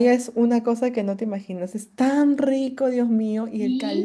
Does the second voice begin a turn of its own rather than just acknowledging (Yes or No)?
No